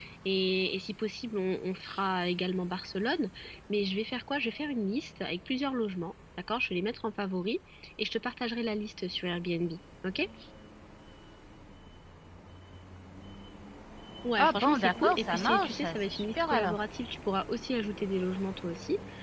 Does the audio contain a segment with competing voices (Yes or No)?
Yes